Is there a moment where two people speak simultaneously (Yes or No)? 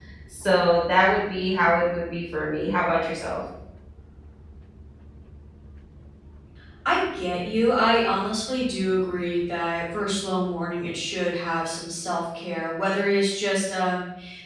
No